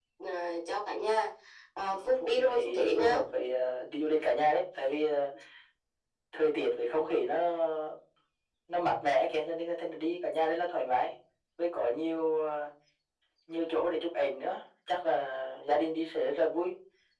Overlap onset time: 1.9 s

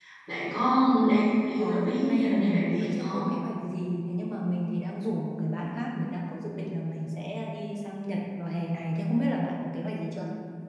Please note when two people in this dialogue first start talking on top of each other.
1.6 s

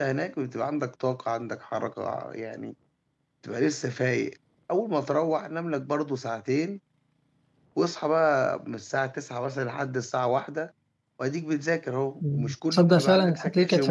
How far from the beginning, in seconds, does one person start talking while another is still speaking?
12.2 s

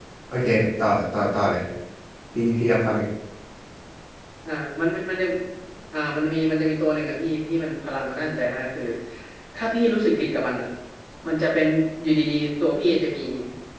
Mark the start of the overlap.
none

